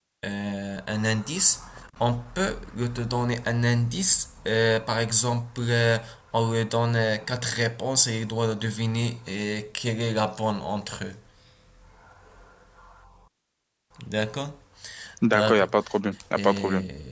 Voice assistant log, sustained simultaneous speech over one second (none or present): none